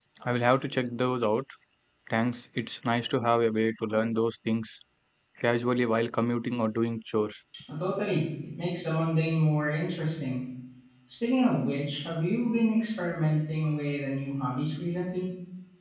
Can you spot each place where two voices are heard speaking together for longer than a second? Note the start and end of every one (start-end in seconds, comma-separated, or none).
none